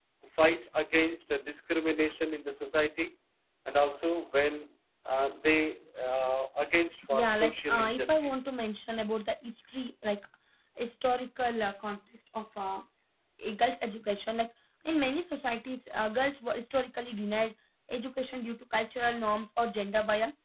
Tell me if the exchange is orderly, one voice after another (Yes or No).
No